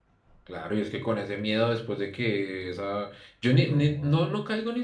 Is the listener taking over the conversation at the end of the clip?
No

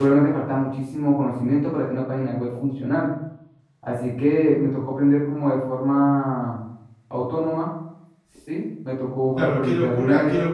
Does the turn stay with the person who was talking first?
No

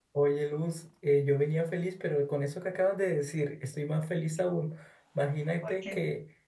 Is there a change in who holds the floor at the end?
No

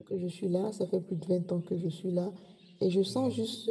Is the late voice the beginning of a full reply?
No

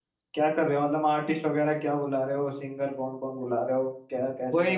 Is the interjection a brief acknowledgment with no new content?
No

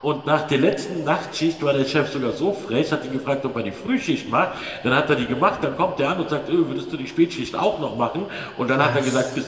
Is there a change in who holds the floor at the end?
No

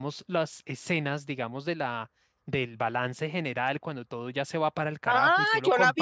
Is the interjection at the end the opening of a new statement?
Yes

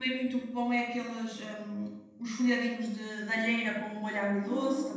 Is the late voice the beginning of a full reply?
Yes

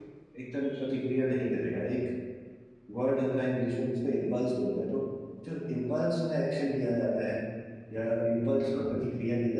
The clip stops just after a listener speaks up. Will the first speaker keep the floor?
Yes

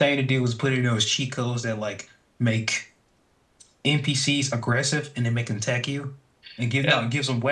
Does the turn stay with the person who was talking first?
Yes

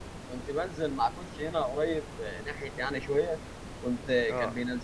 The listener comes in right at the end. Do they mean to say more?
No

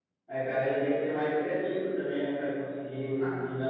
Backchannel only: Yes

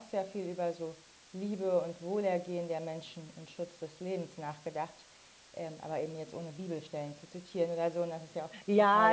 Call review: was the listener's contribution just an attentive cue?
No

